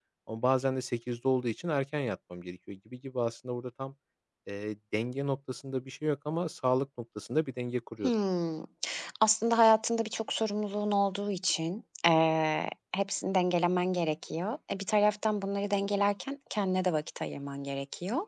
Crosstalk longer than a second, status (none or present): none